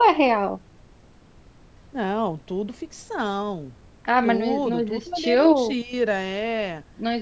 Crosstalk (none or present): present